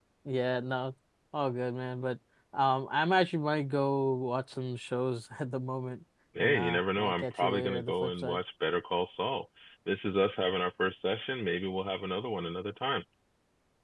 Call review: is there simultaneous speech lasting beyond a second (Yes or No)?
Yes